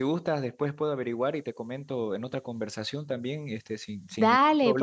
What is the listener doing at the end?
taking over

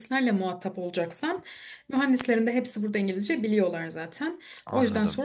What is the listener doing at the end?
listening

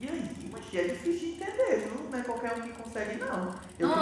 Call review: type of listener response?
listening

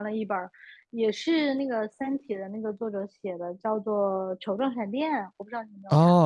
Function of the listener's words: taking over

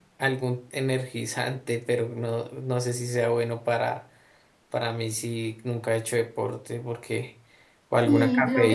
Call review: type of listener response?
taking over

